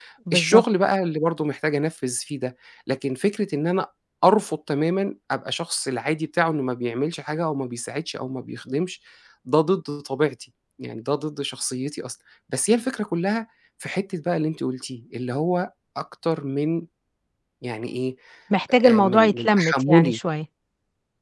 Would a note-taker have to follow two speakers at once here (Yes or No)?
Yes